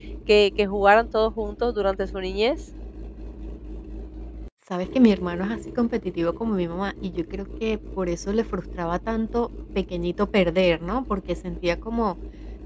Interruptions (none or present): none